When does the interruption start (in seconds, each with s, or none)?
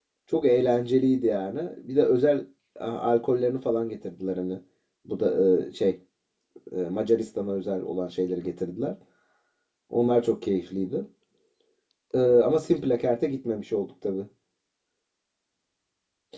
none